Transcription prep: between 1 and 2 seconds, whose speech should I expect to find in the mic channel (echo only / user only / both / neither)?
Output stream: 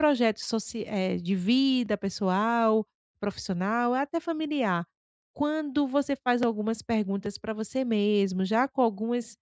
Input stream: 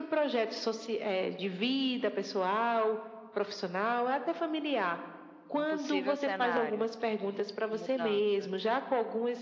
echo only